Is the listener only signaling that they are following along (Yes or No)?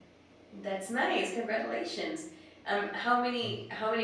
Yes